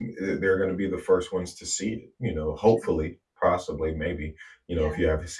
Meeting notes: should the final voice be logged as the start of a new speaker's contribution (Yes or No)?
No